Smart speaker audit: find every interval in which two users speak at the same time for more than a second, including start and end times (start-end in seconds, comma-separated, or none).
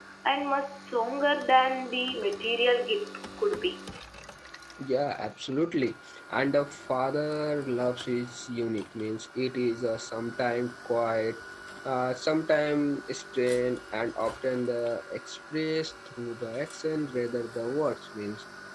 none